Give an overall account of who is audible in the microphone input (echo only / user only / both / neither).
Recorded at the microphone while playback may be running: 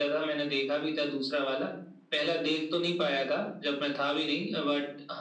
echo only